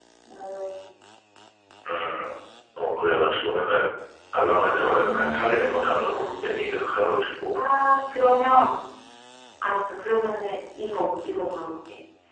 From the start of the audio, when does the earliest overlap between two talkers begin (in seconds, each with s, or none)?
5.0 s